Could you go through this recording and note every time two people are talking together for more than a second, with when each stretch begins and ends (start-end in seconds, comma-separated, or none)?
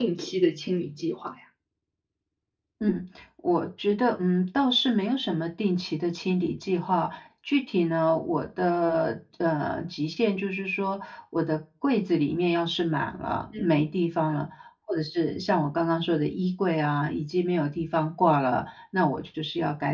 none